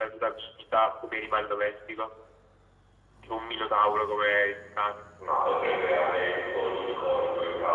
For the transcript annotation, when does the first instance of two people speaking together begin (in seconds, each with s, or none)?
none